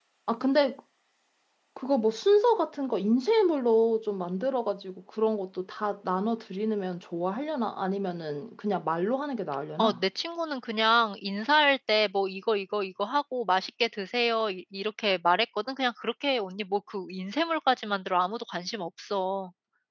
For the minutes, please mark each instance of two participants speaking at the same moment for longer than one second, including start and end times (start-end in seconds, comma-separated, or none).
none